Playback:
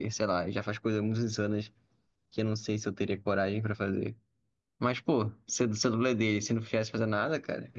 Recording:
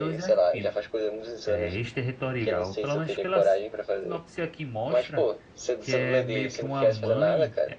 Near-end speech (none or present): present